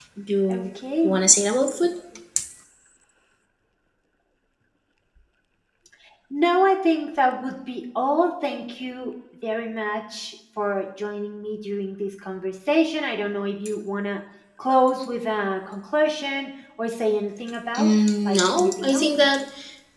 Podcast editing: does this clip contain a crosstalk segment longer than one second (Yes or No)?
Yes